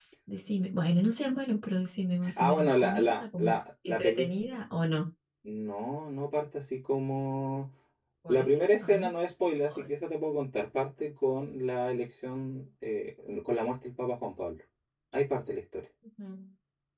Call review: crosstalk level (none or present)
present